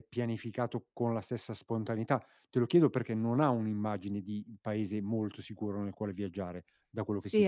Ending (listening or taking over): taking over